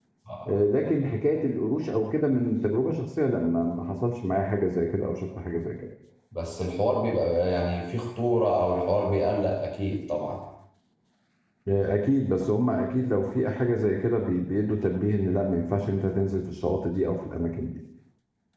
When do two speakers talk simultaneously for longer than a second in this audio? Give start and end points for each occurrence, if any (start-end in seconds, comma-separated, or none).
none